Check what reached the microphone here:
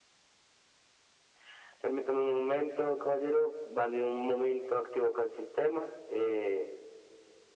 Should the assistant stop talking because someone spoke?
No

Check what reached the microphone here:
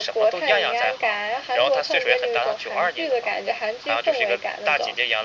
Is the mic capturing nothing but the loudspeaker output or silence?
Yes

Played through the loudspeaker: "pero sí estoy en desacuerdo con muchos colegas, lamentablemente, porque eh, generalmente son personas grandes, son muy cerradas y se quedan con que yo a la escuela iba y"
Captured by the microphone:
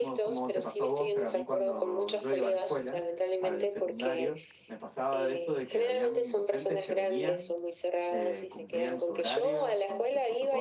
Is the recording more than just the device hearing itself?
Yes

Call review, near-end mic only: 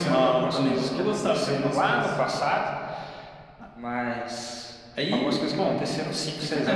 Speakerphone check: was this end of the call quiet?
Yes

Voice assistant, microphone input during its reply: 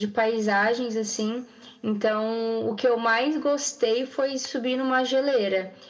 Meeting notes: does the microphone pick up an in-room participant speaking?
No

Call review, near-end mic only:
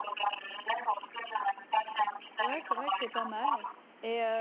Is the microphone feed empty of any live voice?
No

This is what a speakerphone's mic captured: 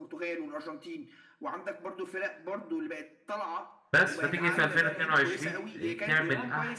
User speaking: Yes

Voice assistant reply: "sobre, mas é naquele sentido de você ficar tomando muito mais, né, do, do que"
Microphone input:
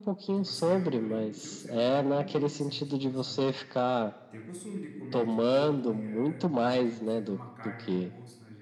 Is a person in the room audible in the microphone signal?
Yes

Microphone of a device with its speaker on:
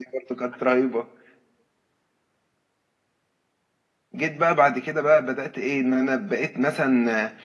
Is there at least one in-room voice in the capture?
Yes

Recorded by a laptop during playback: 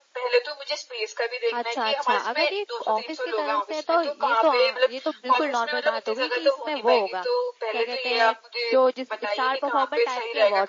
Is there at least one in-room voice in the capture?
Yes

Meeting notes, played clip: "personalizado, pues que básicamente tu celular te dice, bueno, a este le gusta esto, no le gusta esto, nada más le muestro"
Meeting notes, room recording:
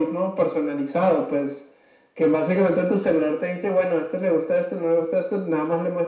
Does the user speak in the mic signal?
No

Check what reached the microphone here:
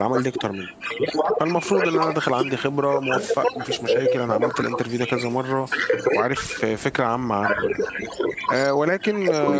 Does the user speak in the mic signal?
Yes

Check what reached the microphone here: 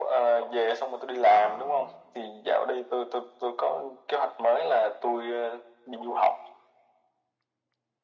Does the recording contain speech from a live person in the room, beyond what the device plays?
Yes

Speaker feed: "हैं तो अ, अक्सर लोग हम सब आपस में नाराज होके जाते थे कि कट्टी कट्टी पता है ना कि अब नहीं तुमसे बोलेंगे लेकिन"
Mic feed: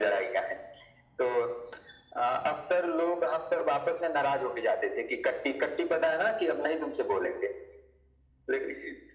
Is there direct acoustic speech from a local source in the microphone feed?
No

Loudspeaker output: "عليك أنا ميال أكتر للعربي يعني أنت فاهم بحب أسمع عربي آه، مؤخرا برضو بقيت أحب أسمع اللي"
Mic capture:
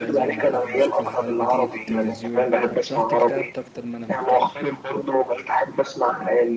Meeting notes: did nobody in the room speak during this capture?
No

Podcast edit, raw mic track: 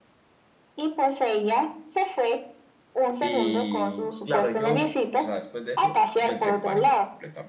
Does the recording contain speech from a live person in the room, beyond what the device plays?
Yes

